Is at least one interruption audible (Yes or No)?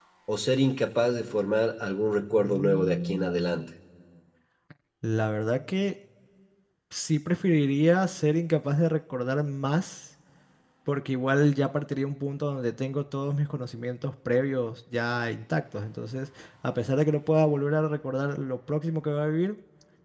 Yes